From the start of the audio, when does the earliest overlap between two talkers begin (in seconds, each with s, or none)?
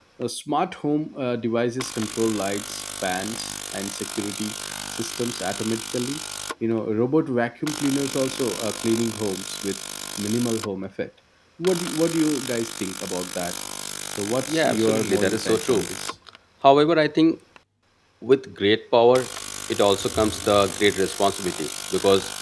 14.5 s